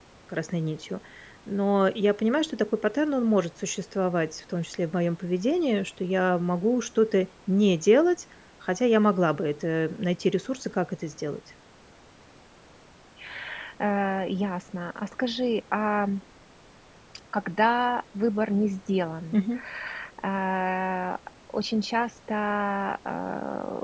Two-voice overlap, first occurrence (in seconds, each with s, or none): none